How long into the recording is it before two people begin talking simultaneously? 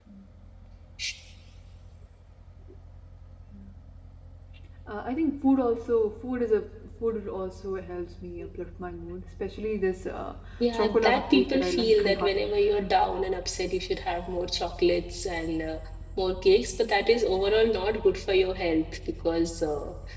10.7 s

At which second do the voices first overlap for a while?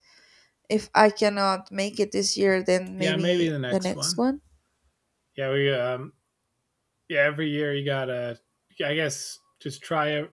3.0 s

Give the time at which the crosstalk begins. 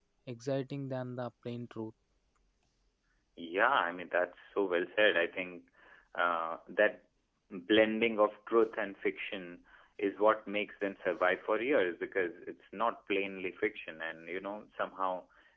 none

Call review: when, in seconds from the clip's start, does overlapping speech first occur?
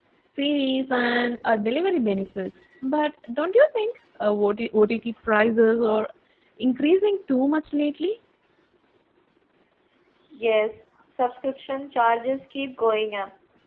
none

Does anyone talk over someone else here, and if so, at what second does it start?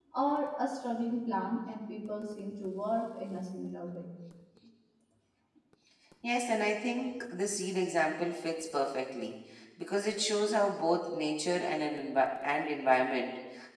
none

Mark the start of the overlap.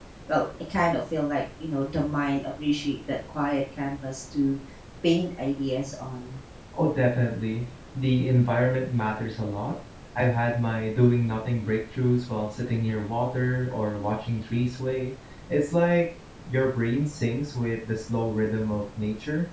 none

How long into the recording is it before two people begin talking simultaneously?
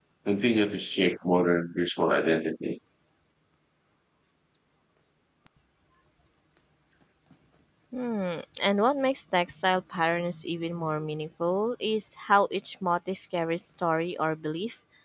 none

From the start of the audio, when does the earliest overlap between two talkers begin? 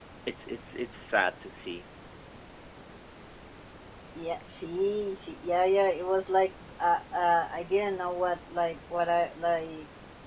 none

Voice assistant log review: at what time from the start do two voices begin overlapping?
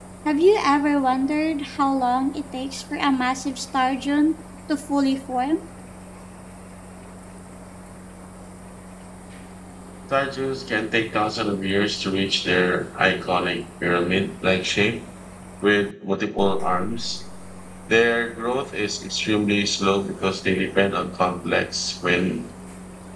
none

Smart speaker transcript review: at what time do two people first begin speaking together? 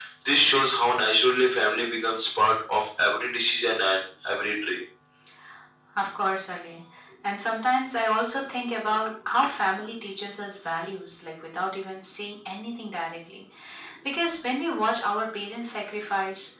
none

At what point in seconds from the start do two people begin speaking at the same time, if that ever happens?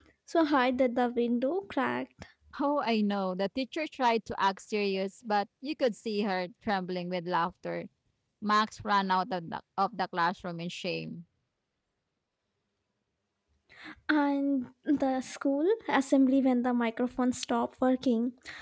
none

